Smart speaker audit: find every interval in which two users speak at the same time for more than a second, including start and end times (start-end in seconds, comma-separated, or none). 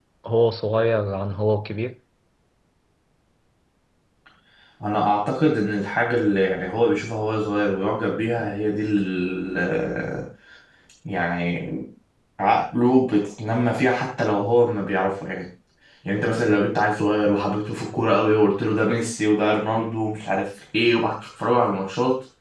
none